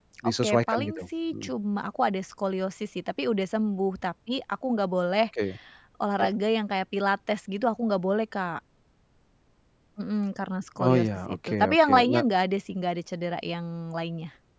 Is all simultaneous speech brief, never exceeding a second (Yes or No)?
No